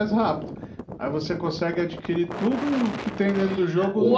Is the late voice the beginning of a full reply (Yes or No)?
Yes